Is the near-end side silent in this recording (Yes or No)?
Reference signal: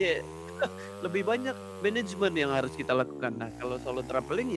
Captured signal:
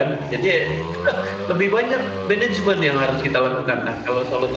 Yes